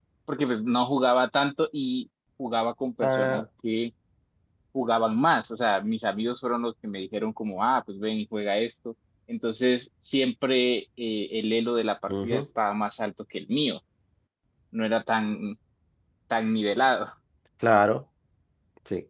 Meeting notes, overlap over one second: none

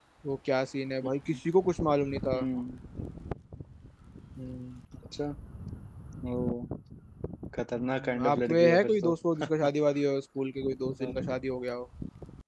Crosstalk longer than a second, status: present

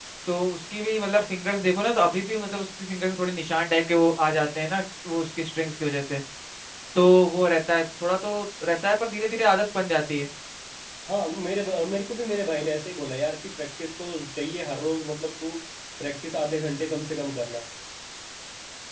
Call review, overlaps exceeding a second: none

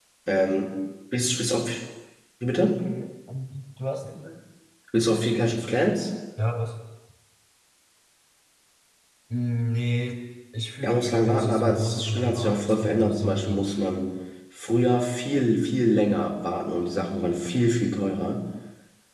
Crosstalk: present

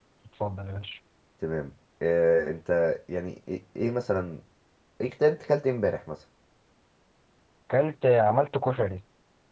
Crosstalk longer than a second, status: none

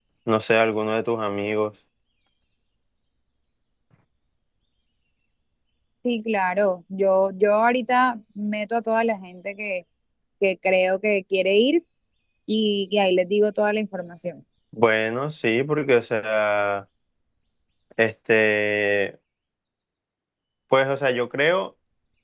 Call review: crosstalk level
none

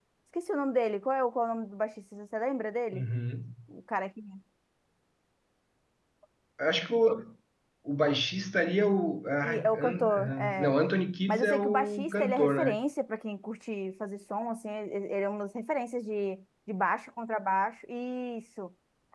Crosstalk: present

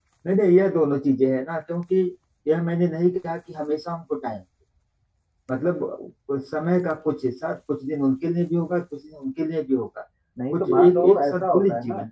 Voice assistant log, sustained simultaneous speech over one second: present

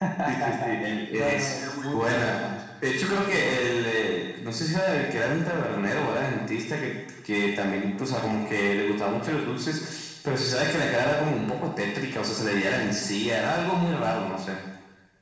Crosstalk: present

